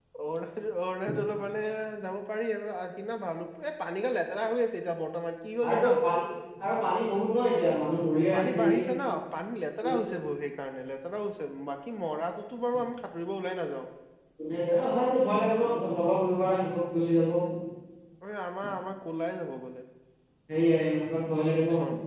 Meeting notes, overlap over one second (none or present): none